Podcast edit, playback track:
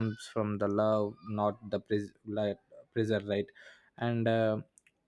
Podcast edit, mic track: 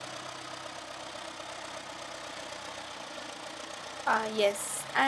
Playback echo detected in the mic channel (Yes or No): No